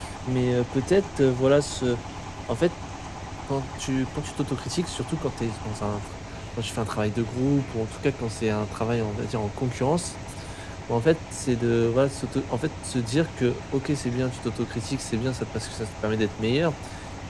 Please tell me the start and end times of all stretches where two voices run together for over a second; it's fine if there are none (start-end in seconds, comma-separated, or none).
none